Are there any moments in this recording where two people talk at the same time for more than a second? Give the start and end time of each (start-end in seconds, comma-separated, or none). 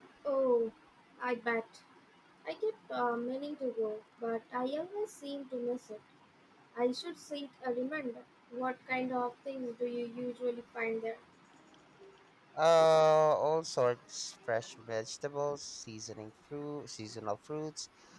none